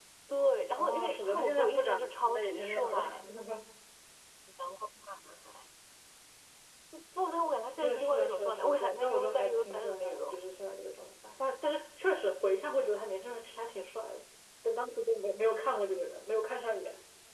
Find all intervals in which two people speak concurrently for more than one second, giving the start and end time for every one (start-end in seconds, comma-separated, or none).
0.8-3.0, 7.8-10.4